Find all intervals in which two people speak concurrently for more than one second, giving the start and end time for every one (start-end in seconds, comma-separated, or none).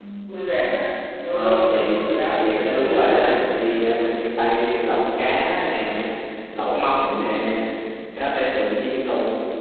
1.3-3.4